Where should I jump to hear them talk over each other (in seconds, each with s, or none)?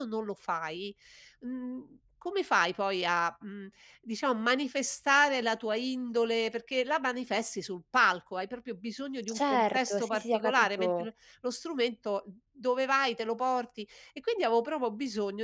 9.3 s